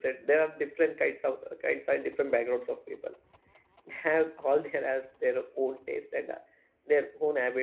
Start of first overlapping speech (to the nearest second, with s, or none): none